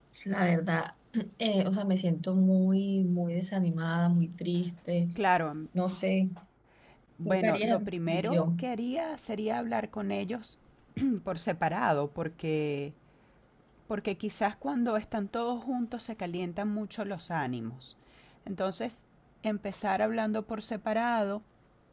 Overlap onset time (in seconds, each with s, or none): 7.2 s